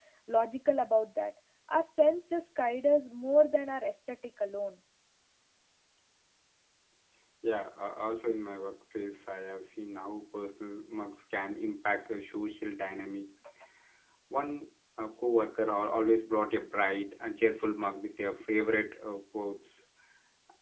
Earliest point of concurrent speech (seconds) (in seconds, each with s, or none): none